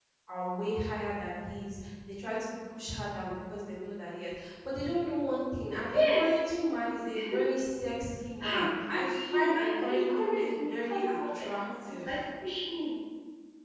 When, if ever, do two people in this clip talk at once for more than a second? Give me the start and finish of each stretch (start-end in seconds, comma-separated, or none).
8.4-12.1